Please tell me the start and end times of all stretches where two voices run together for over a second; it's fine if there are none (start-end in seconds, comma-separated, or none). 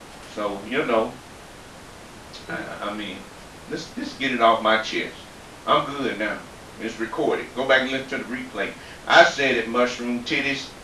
none